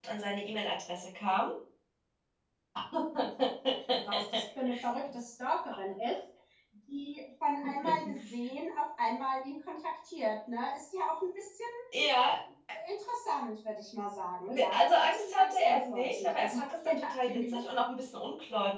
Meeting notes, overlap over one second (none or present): present